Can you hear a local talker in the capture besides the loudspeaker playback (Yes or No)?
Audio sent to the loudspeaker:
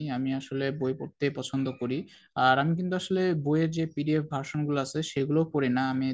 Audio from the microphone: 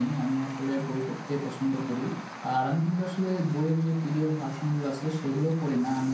No